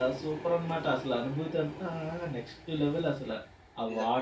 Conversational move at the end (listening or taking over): taking over